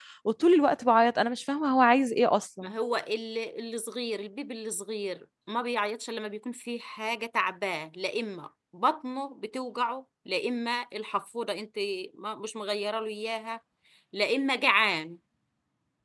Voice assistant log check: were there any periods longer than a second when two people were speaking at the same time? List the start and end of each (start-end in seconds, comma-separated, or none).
none